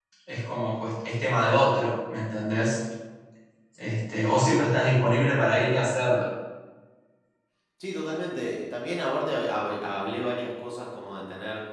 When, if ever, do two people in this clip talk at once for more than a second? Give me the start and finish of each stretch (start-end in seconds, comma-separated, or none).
none